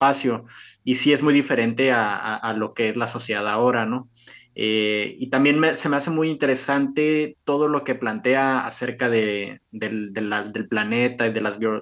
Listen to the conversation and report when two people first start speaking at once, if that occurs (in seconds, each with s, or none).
none